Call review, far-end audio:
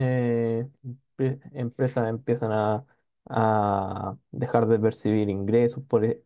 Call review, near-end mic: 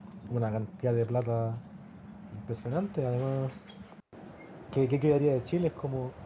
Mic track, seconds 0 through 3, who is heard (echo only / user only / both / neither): user only